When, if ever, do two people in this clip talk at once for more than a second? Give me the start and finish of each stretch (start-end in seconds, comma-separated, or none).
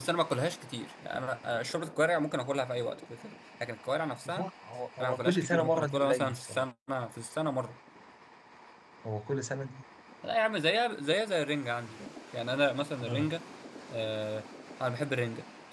5.0-6.7